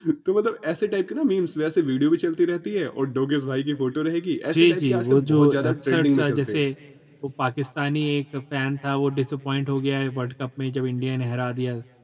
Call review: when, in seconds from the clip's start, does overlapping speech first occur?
5 s

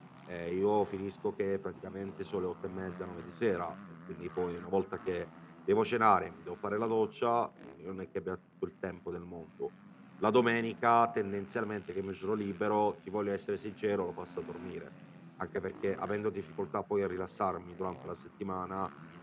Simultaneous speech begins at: none

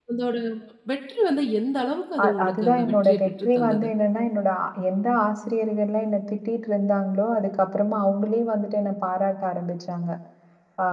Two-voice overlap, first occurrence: 2 s

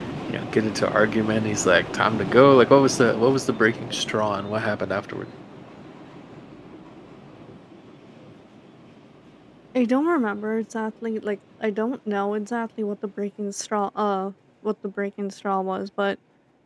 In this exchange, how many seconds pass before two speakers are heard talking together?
none

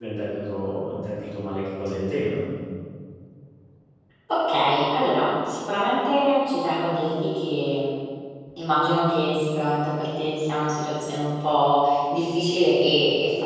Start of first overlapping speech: none

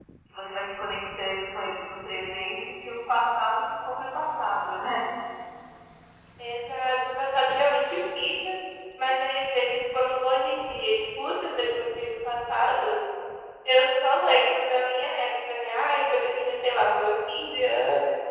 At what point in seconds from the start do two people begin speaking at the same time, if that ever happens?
none

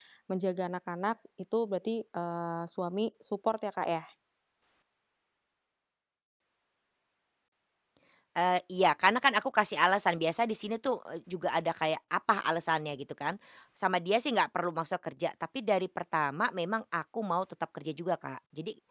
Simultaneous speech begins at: none

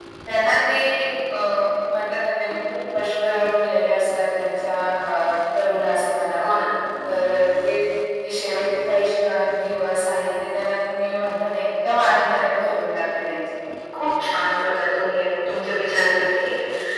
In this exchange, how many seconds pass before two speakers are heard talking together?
none

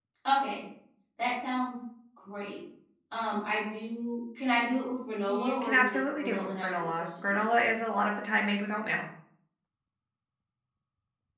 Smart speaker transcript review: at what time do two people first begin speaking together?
5 s

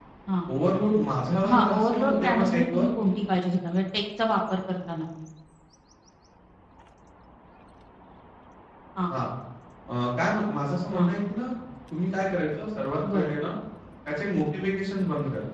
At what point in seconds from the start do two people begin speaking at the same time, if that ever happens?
1 s

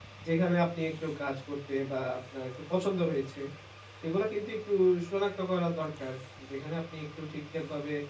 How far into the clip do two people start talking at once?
none

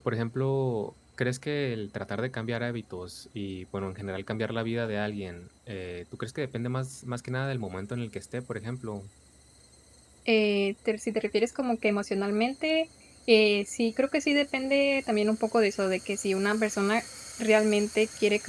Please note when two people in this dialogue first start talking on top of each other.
none

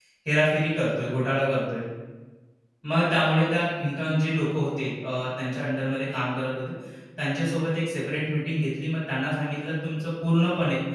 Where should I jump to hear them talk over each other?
none

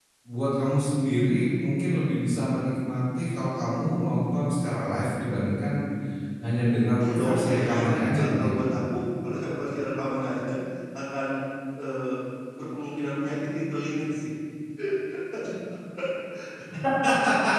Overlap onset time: 7 s

